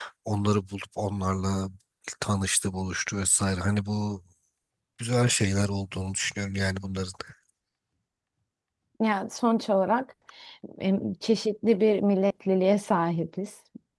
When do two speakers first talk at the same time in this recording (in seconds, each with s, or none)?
none